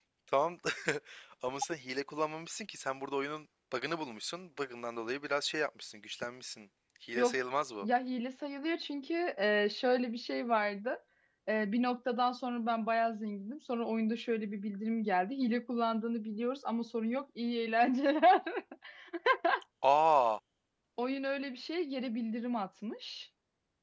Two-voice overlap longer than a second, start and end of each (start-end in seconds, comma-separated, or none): none